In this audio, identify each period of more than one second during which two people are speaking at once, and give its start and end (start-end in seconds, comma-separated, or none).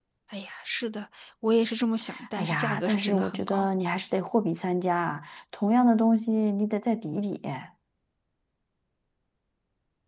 2.3-3.7